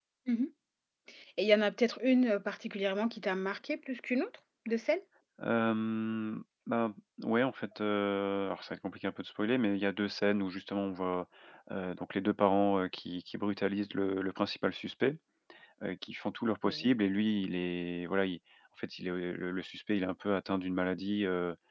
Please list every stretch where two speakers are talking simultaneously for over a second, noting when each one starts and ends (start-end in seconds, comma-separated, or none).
none